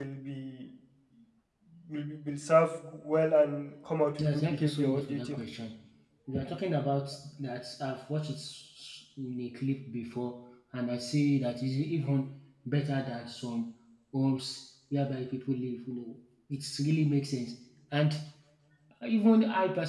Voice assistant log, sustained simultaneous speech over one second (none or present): present